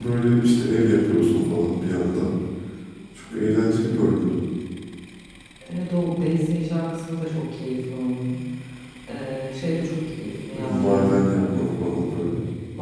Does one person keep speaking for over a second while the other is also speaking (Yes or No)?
Yes